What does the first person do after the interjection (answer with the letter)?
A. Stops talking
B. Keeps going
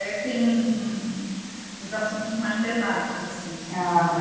B